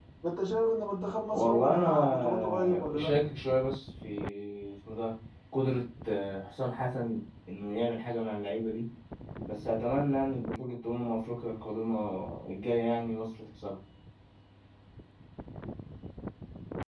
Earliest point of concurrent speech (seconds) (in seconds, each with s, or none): 1.3 s